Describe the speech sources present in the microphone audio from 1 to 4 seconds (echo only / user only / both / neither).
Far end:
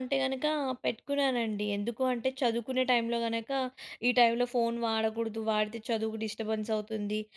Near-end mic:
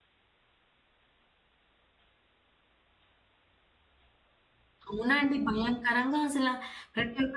neither